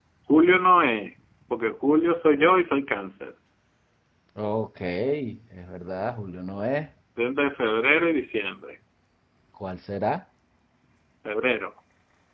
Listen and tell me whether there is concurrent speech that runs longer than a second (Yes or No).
No